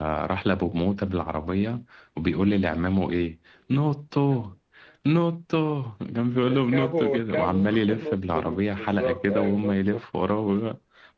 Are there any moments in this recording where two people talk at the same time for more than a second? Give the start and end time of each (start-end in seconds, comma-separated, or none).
6.5-10.0